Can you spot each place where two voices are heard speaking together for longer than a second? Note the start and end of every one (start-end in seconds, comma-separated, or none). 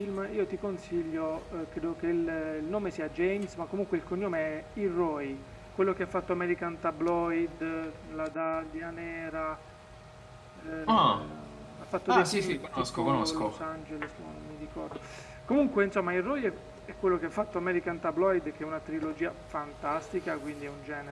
12.1-13.6